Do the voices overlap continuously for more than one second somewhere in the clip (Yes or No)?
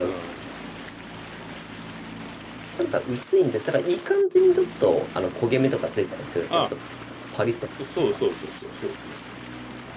No